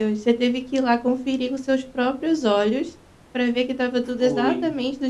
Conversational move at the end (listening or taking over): listening